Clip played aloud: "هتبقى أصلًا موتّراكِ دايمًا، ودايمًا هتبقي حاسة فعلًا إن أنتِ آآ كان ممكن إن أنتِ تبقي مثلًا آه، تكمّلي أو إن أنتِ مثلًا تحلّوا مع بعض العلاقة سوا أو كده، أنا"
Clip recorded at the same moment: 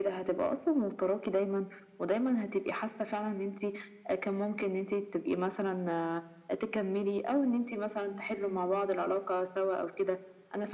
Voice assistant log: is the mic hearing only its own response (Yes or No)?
Yes